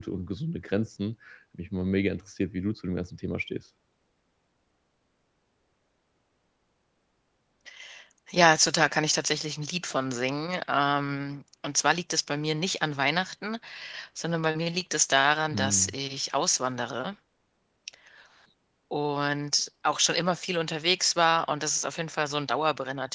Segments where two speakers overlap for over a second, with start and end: none

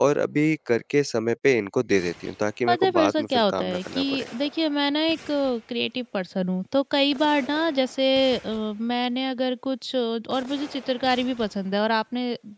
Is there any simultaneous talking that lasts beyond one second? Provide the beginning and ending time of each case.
2.7-4.2

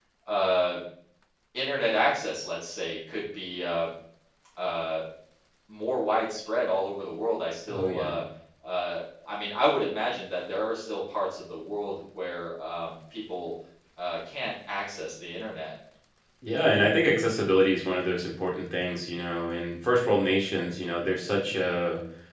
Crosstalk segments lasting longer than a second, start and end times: none

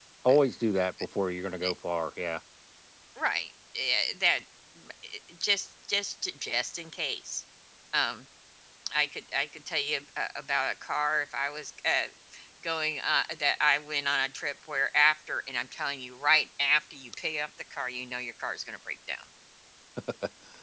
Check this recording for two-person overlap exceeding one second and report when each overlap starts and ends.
none

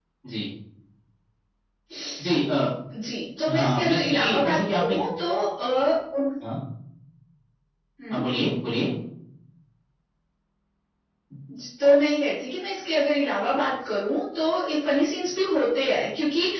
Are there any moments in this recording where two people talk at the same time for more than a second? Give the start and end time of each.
3.5-5.0

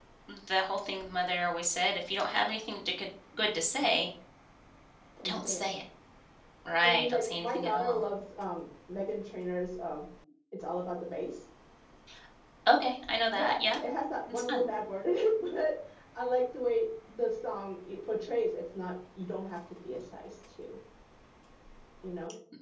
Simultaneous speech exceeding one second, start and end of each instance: 6.8-8.0

